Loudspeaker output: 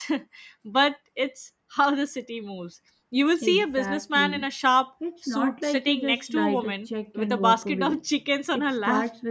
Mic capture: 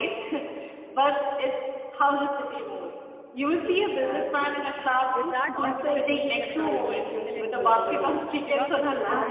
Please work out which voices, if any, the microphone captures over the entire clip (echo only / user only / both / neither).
both